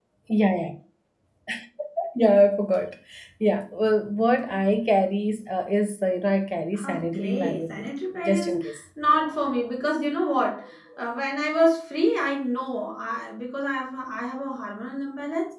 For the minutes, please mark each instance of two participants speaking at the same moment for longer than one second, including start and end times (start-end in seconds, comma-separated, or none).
6.8-8.6